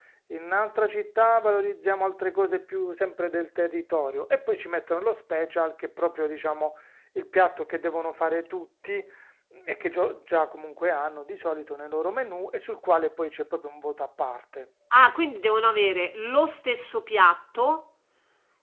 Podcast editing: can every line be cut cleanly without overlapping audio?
Yes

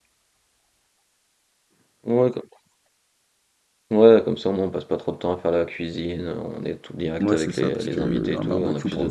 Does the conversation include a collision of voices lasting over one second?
Yes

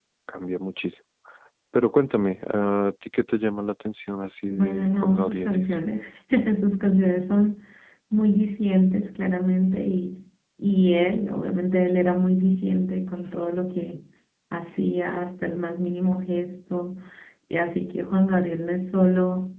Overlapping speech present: Yes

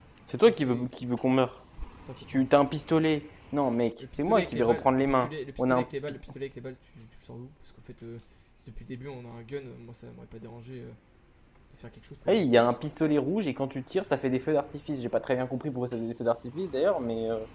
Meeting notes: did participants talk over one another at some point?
Yes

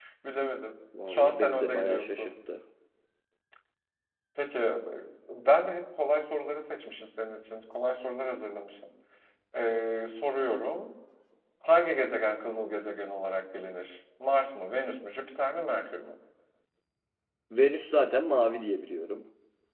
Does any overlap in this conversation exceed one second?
Yes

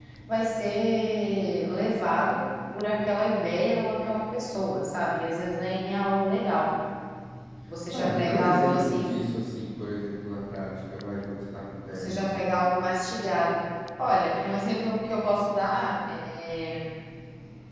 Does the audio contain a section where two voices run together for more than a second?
Yes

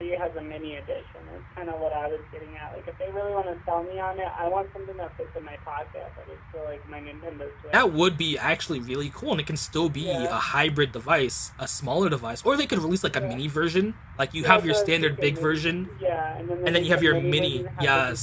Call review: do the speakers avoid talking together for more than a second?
No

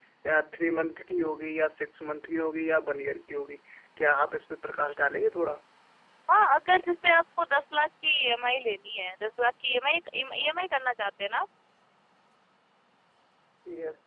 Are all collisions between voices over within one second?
Yes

